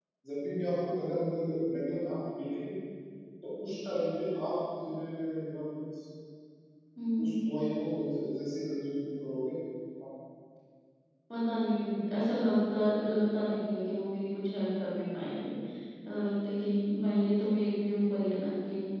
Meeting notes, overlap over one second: none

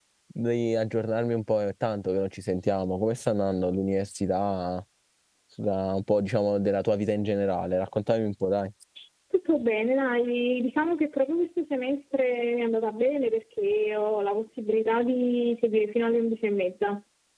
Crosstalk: none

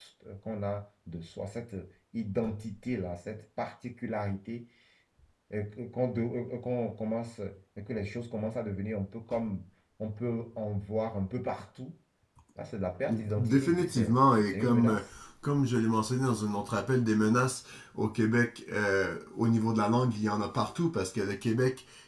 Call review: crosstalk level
present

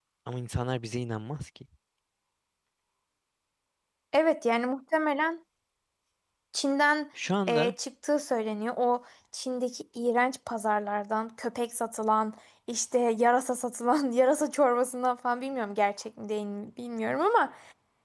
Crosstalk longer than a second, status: none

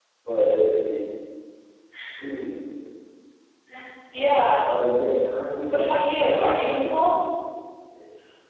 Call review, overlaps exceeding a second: present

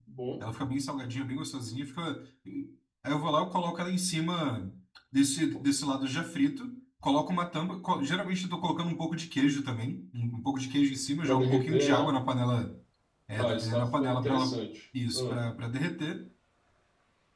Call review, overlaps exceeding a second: present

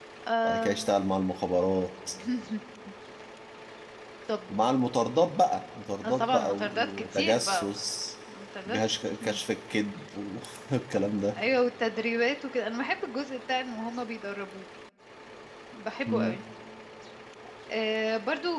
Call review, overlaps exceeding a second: present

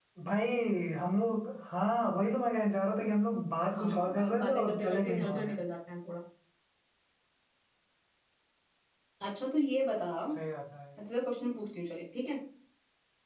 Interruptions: present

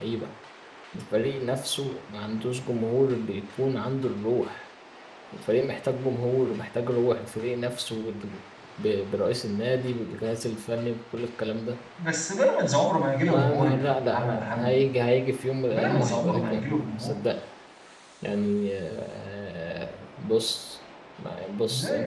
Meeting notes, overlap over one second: present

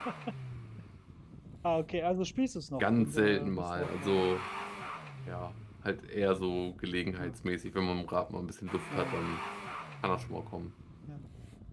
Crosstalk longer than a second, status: present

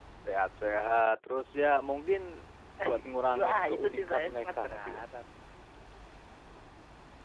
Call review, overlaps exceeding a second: present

